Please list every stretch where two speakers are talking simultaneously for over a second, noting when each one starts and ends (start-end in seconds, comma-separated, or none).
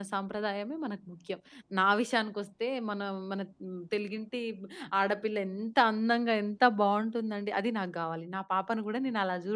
none